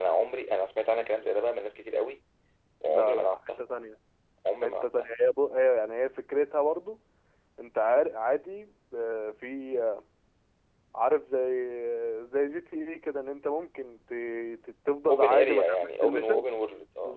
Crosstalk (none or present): present